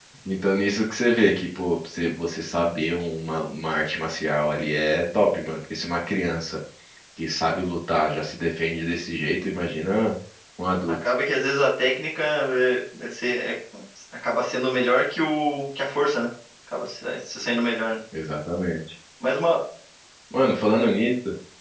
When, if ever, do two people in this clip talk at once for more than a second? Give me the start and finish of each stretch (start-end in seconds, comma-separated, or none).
none